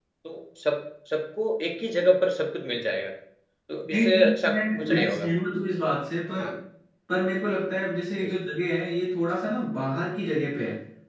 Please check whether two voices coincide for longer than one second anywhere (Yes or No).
Yes